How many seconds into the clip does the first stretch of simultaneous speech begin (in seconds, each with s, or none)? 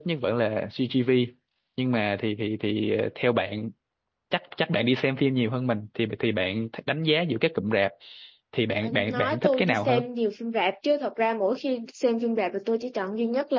8.8 s